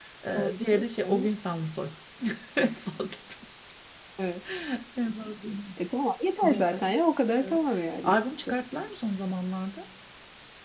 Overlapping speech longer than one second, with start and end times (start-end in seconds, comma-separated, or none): none